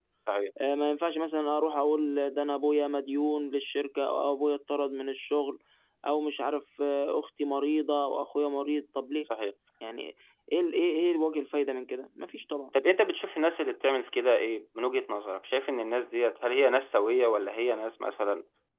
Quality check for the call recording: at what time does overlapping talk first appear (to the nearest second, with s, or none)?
none